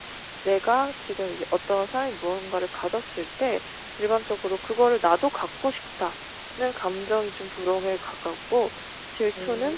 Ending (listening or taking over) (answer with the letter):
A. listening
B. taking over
A